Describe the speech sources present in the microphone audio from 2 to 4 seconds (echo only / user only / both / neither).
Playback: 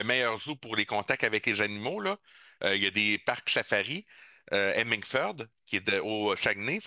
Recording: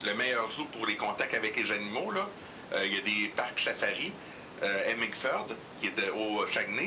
echo only